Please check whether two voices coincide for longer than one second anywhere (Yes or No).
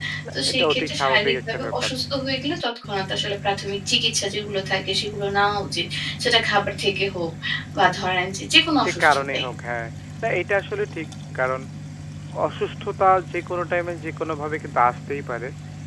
Yes